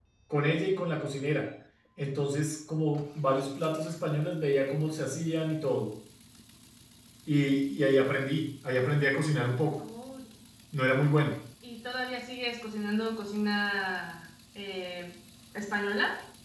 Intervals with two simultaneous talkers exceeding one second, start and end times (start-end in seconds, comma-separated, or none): none